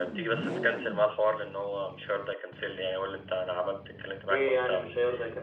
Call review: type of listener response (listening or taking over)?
taking over